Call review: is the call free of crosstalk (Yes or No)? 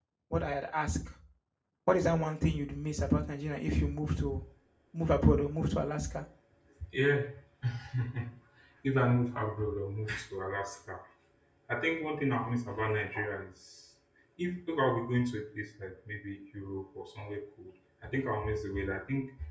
Yes